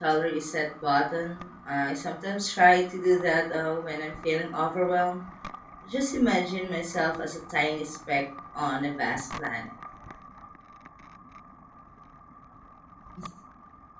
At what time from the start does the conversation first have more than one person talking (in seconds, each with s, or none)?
none